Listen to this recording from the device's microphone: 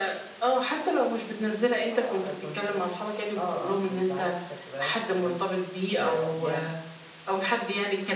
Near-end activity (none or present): present